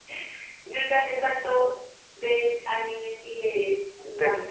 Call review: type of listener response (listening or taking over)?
taking over